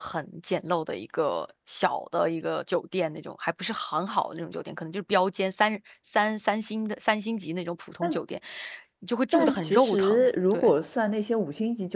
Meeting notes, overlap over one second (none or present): present